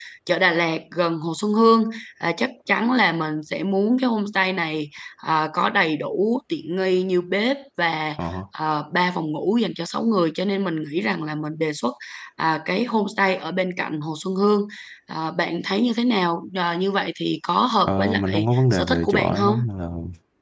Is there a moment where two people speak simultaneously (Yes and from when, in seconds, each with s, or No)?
Yes, from 17.9 s